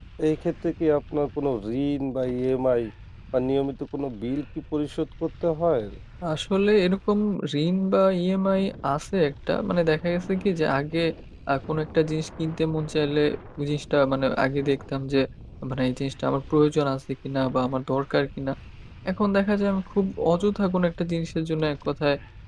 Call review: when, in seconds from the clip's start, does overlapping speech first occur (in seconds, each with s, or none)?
none